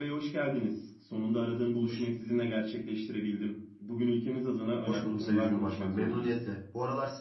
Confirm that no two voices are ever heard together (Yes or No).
No